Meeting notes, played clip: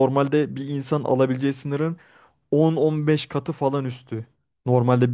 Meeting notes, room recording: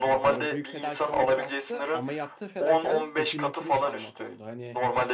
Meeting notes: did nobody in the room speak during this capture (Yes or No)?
No